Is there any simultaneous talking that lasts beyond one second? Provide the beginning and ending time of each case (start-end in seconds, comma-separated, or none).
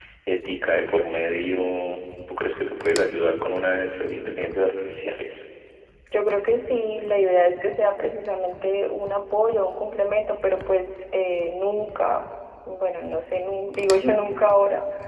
none